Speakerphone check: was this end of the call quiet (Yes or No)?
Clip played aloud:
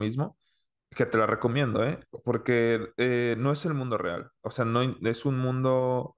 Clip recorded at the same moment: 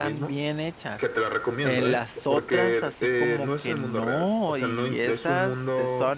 No